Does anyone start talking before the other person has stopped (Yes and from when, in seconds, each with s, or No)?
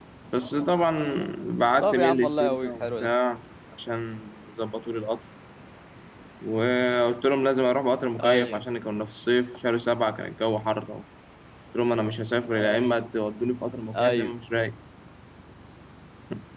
Yes, from 1.8 s